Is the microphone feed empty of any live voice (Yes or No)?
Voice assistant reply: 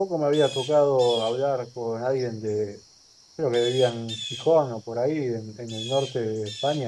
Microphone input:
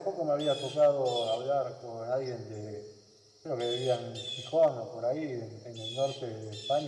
Yes